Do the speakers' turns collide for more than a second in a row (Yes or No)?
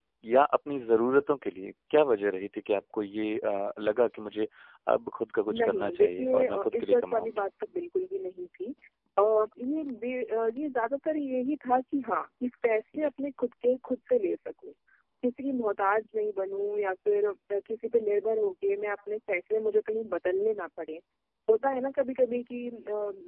Yes